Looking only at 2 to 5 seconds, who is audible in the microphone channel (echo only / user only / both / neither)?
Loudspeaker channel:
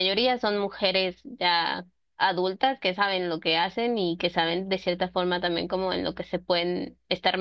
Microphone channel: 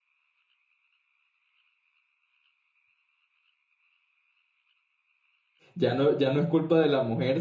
neither